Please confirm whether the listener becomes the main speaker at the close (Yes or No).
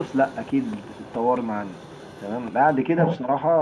No